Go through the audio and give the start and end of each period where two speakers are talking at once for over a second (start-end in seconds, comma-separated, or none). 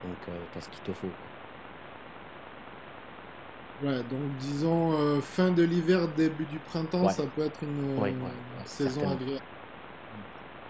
8.0-9.2